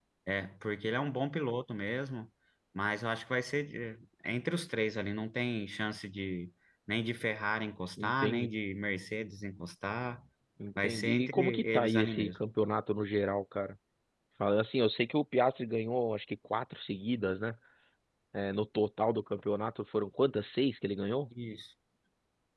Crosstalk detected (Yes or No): Yes